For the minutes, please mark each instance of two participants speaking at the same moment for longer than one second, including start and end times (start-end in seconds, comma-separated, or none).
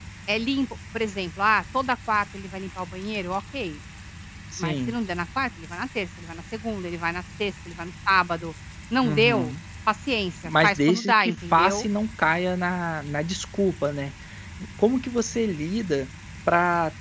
10.6-11.9